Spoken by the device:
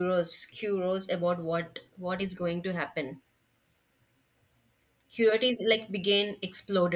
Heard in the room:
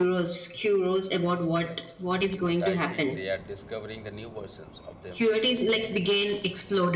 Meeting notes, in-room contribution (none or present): present